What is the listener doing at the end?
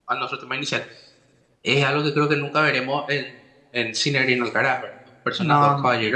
listening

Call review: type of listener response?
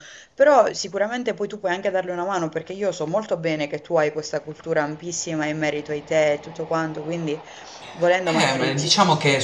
taking over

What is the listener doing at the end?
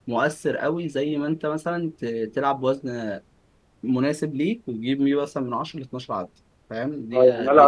taking over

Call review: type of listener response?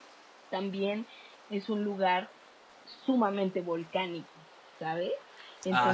taking over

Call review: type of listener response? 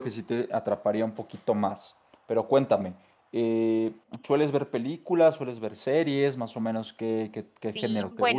taking over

